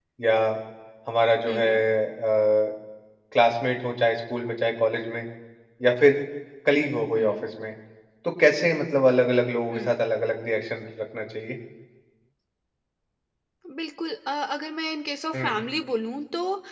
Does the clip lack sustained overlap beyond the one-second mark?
Yes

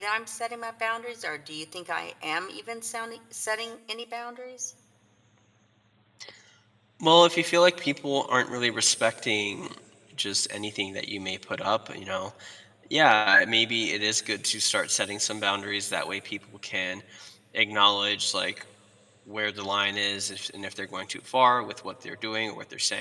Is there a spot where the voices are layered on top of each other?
No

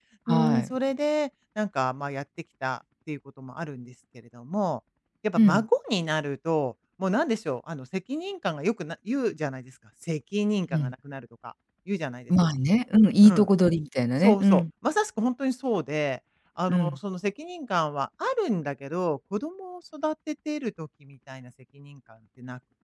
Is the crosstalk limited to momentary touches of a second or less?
Yes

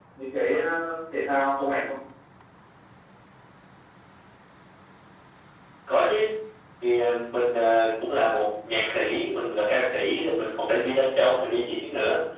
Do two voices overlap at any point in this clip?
No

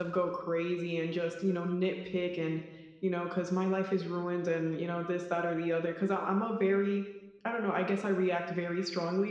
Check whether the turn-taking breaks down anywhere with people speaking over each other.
No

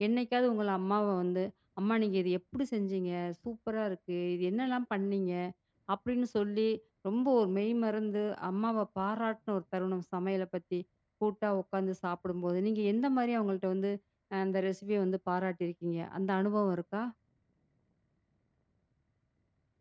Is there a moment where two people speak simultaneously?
No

